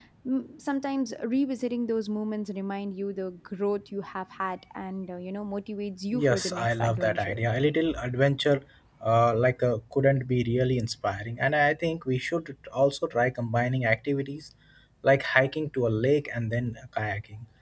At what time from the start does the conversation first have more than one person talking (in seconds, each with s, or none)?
6.1 s